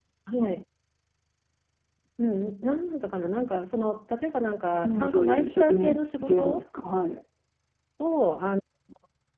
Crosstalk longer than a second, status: present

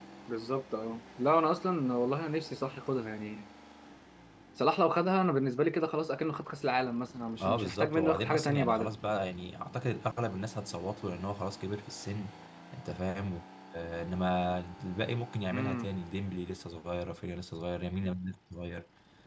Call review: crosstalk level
present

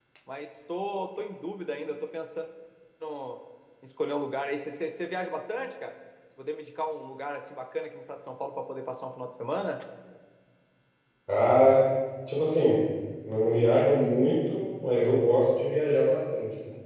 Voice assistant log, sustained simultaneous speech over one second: none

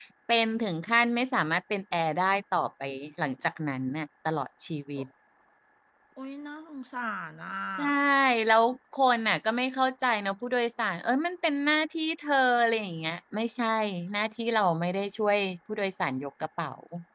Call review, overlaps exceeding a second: none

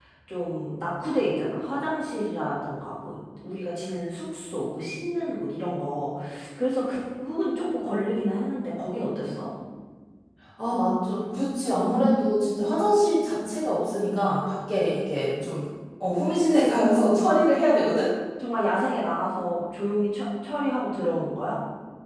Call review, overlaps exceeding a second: none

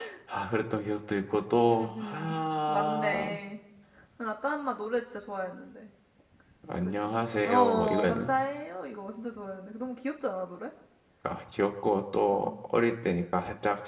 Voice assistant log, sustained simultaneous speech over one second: present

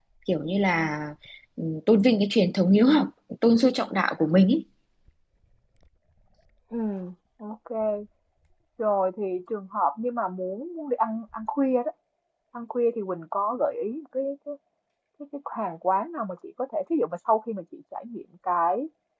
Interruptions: none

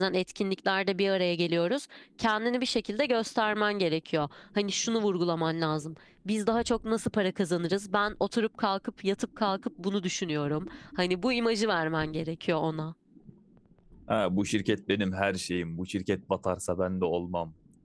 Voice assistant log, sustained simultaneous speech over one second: none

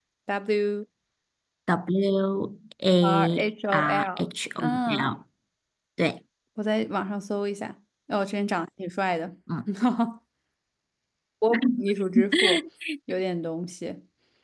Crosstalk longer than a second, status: present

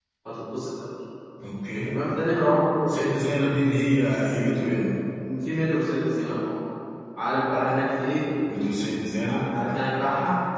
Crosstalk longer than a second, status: none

